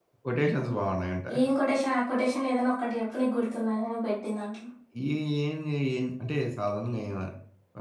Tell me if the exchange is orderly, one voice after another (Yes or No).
Yes